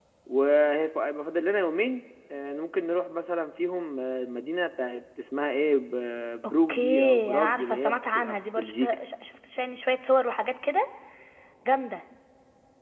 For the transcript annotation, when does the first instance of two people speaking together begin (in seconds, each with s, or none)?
6.4 s